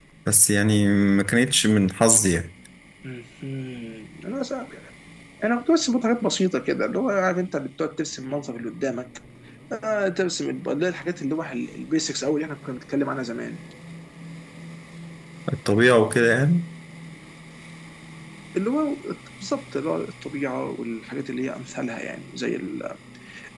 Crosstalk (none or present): none